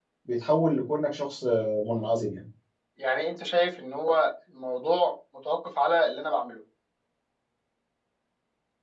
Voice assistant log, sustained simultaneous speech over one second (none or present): none